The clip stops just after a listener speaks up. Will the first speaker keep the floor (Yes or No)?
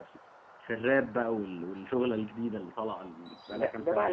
No